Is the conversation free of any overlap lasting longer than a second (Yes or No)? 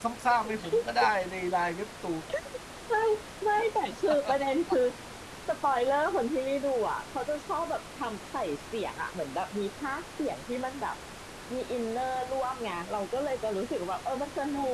Yes